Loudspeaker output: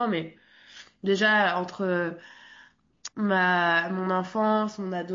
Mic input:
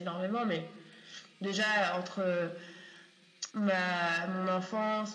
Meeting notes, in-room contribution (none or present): none